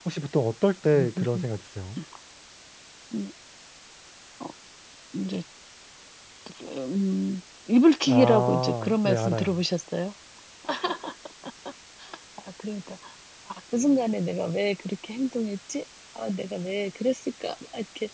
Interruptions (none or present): present